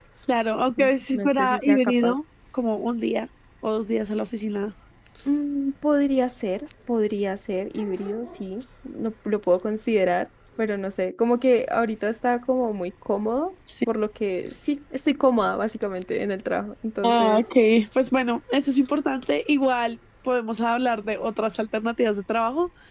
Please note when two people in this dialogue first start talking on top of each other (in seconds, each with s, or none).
0.8 s